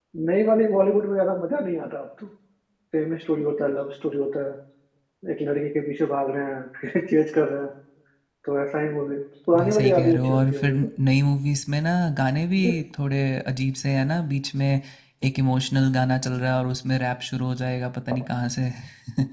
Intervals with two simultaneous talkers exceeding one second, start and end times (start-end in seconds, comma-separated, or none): 9.6-10.8